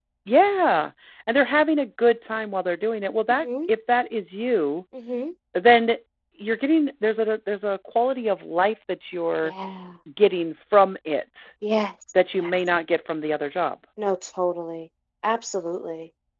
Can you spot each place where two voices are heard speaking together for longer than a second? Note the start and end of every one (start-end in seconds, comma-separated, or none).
none